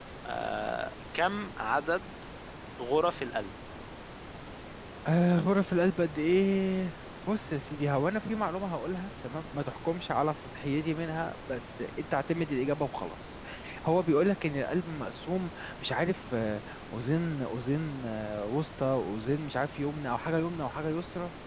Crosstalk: none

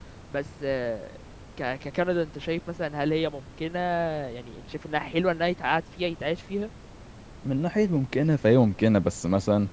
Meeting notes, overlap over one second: none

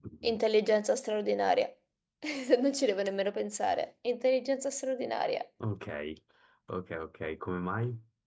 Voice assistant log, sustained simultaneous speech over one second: none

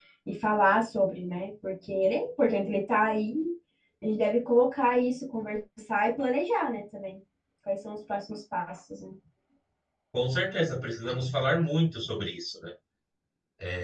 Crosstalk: none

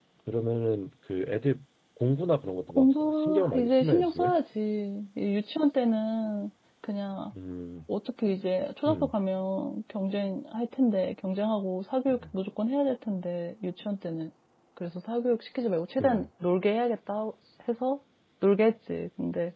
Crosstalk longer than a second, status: present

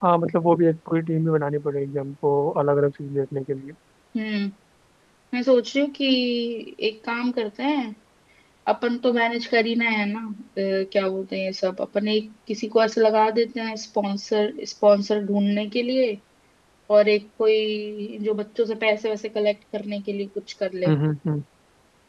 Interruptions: none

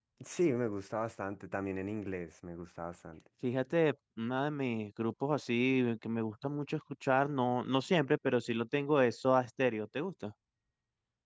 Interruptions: none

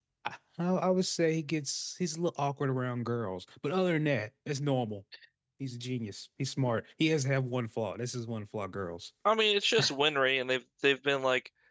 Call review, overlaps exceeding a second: none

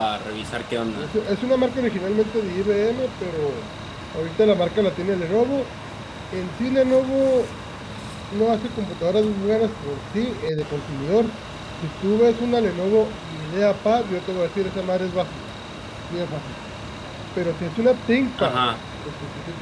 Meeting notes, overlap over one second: none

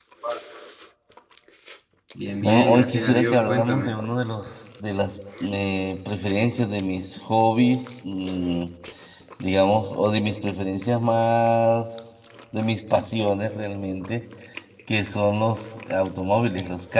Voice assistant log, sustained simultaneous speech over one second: present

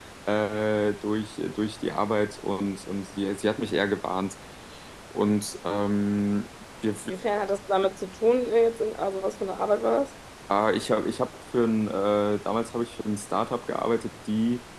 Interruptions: none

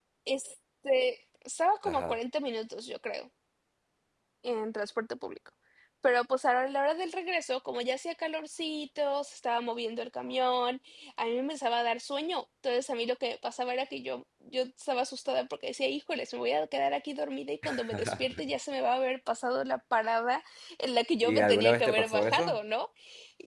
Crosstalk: present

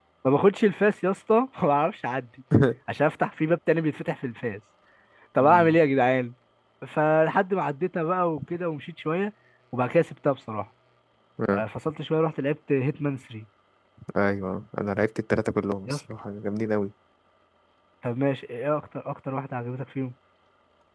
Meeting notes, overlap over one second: none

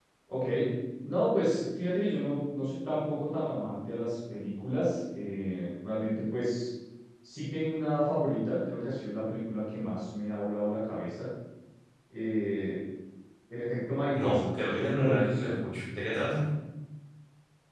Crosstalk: present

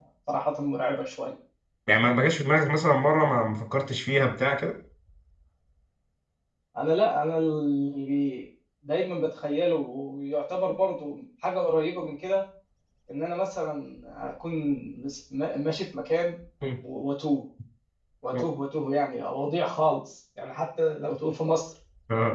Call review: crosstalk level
none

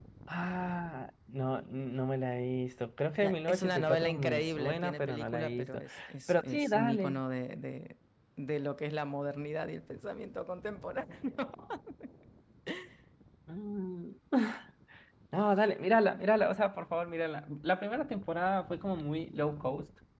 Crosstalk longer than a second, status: present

